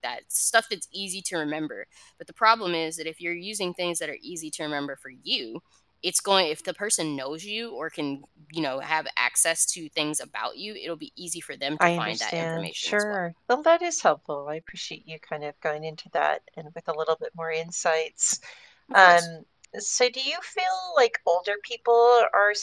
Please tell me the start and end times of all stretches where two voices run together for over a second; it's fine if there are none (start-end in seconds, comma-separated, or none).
11.8-13.2